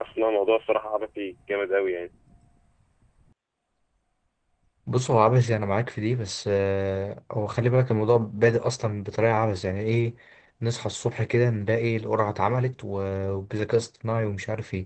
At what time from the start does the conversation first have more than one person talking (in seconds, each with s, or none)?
none